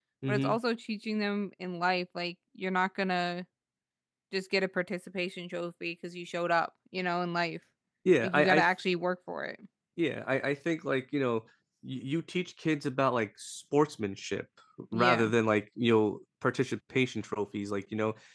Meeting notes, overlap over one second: none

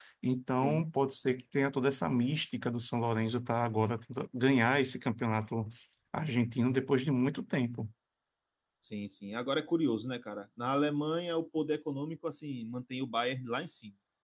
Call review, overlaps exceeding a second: none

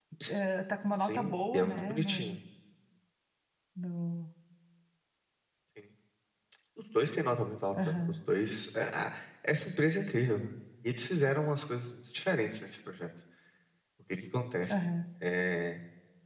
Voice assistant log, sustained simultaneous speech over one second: present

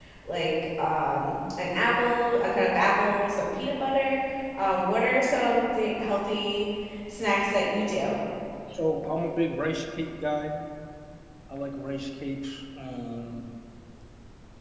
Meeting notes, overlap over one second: none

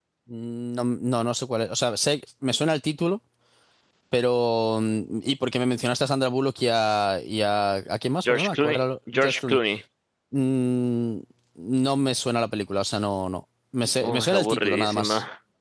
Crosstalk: present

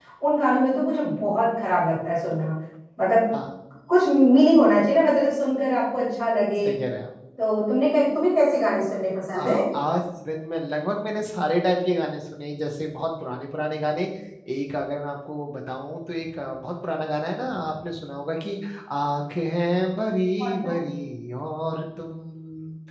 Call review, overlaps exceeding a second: none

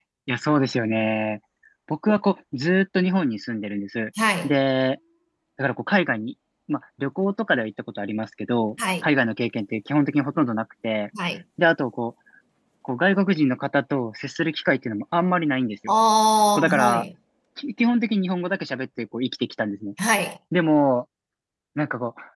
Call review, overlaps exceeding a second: none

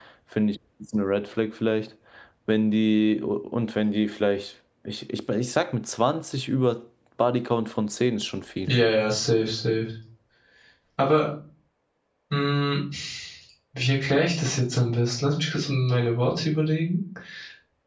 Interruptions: none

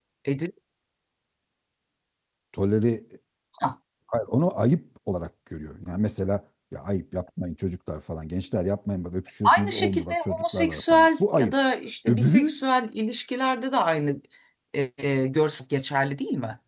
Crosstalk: present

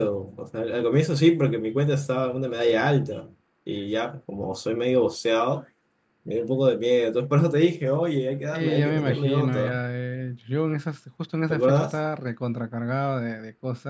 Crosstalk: present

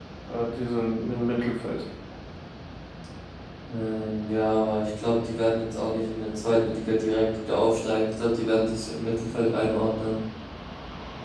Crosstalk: none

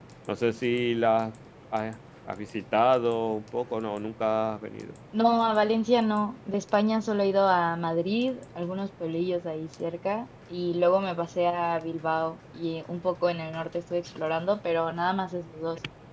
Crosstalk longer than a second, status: none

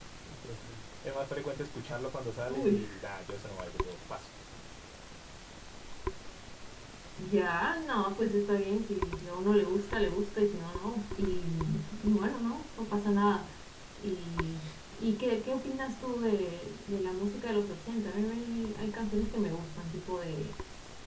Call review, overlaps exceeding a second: none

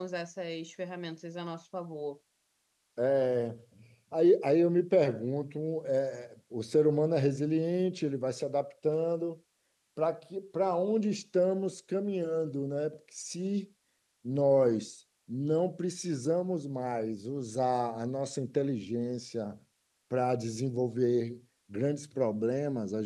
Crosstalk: none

